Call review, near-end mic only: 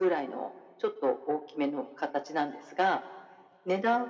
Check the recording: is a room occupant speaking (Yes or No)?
No